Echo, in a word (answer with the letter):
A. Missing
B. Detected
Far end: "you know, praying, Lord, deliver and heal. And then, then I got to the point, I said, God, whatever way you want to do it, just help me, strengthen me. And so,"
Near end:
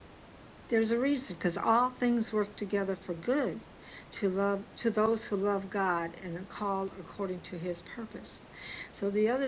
A